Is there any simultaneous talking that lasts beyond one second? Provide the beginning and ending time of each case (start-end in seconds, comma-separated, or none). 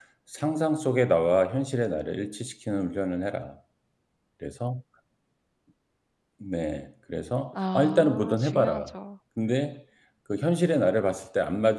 7.5-8.9